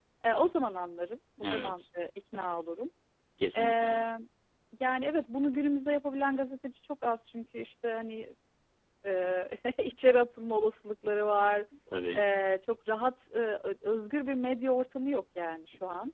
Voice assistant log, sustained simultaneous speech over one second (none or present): none